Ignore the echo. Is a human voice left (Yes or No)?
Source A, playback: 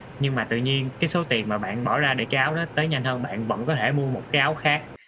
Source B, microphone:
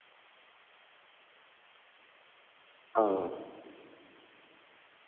Yes